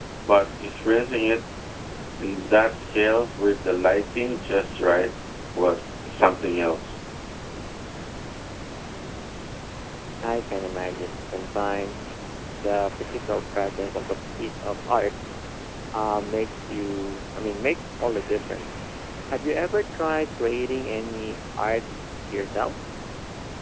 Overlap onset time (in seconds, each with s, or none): none